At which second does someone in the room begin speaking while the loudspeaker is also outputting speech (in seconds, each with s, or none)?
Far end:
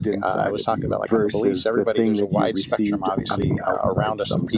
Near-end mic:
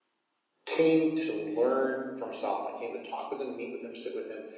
0.6 s